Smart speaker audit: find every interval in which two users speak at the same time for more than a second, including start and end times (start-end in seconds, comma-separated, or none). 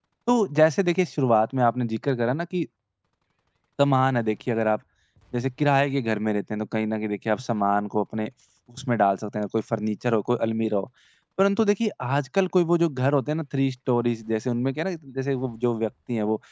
none